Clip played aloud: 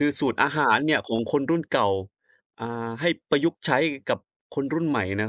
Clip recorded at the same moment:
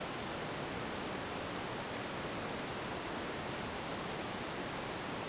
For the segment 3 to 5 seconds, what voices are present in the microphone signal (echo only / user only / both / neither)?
neither